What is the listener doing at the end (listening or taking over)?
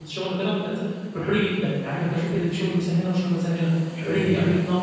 listening